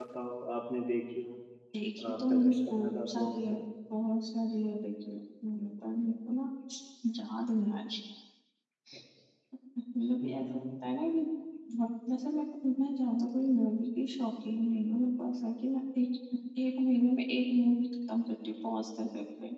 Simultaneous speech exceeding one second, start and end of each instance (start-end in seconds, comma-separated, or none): 2.0-3.5